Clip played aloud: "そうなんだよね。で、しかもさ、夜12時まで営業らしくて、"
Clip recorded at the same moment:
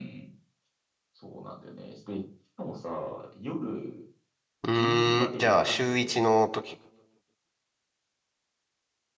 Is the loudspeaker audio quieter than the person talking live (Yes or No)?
Yes